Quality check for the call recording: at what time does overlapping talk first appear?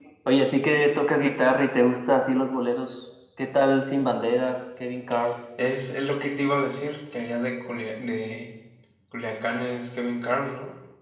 none

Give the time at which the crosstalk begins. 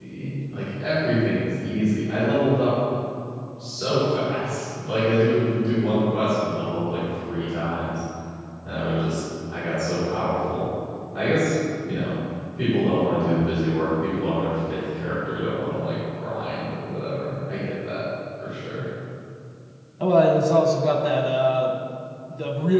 none

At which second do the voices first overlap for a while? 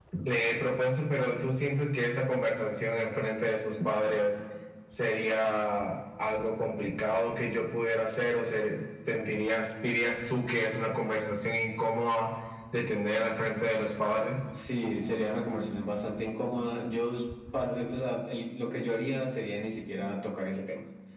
none

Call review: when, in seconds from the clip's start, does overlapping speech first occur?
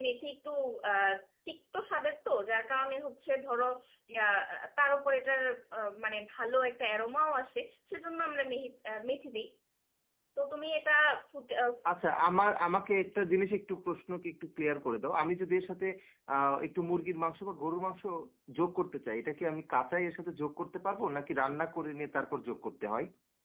none

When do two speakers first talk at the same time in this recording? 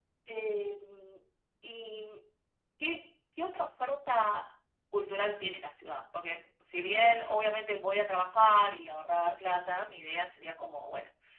none

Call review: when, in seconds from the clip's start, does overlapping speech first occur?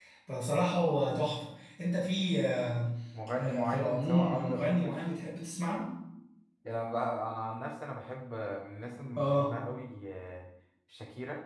3.4 s

